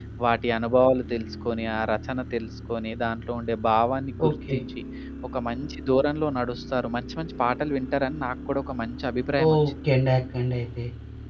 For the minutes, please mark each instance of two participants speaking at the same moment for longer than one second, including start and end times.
none

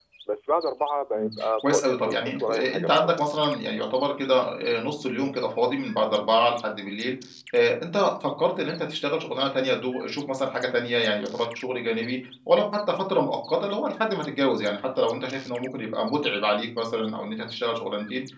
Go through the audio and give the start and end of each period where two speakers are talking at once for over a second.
1.2-3.1

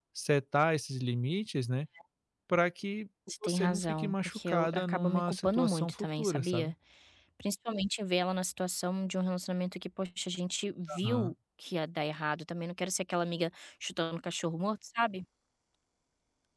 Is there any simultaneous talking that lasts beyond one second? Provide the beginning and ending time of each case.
3.4-6.7

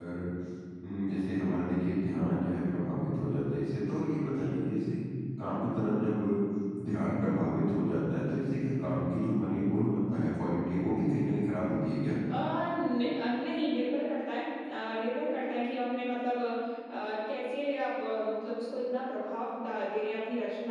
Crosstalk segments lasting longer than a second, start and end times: none

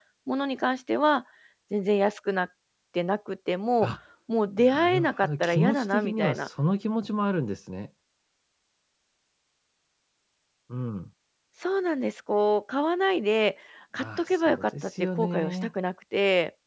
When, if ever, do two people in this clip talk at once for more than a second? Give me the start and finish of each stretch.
4.6-6.5, 14.0-15.7

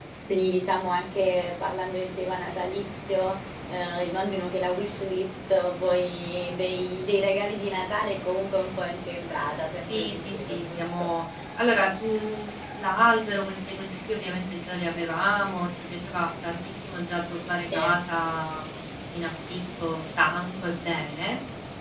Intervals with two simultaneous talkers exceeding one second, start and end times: 9.7-11.1

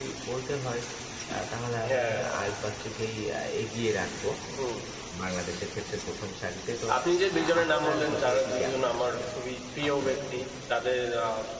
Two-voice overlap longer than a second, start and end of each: 7.3-9.2

